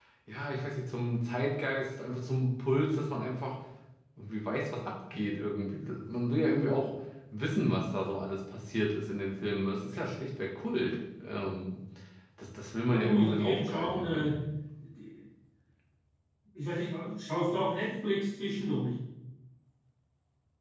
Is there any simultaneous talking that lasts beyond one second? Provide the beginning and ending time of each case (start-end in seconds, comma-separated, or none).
12.9-14.3